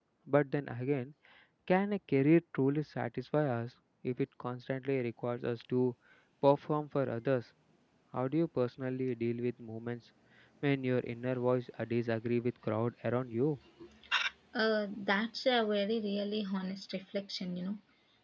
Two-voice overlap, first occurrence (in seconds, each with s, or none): none